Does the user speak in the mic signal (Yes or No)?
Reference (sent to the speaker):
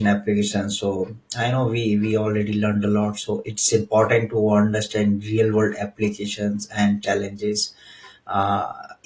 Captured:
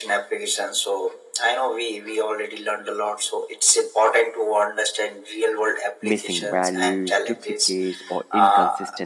Yes